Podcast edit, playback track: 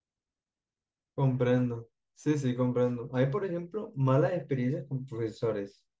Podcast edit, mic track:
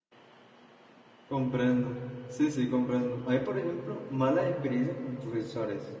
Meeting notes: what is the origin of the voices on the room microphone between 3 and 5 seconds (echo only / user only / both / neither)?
echo only